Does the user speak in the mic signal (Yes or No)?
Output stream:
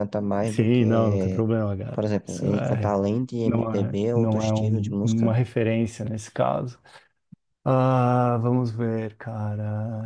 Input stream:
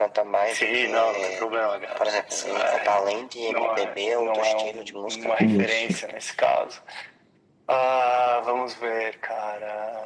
Yes